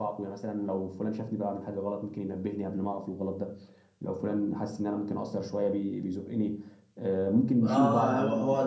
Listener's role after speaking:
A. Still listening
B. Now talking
B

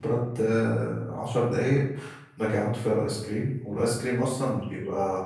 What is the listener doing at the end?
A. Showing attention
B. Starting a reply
A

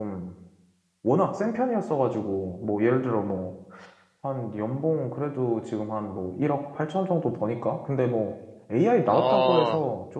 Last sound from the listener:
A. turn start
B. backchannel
B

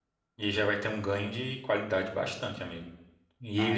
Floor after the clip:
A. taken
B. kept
B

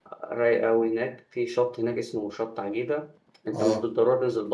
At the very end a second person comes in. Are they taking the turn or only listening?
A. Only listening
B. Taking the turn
A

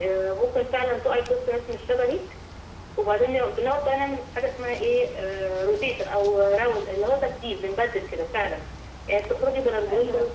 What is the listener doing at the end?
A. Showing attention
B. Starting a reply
A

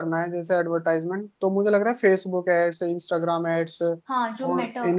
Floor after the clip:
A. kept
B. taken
B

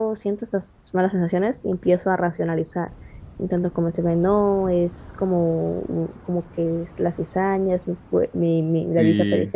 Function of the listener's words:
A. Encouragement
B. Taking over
A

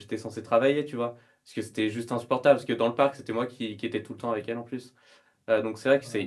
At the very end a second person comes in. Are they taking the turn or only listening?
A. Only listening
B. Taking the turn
A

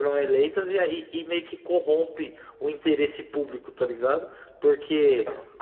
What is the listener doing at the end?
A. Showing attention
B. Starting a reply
A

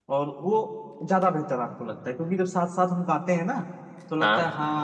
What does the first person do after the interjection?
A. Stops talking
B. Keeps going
B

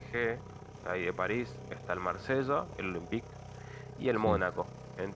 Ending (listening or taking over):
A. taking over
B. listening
B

